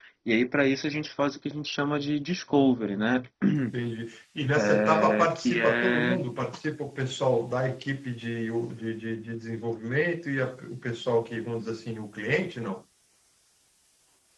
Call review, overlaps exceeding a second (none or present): present